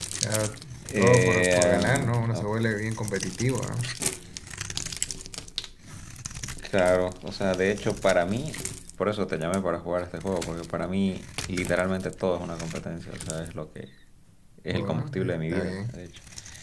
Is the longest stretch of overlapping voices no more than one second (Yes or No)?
No